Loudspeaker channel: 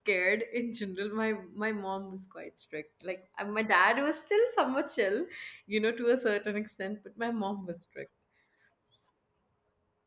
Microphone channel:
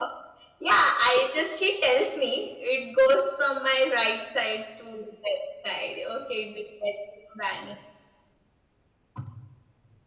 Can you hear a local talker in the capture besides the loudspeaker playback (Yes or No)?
Yes